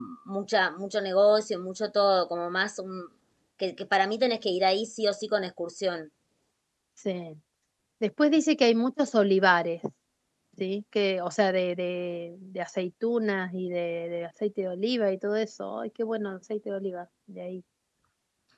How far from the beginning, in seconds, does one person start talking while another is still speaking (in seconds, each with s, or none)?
none